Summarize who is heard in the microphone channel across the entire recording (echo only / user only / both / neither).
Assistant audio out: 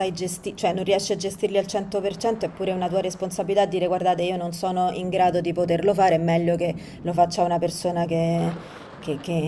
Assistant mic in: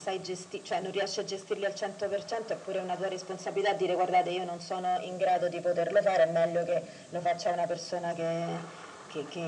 echo only